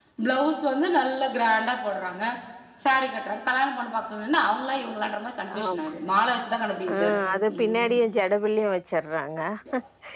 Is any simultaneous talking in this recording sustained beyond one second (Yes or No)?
No